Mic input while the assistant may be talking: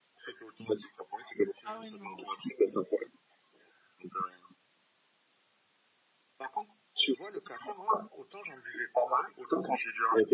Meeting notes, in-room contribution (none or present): present